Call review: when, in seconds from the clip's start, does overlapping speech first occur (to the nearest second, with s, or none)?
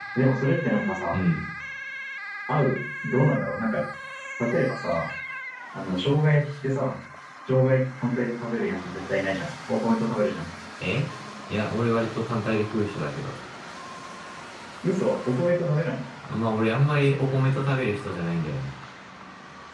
none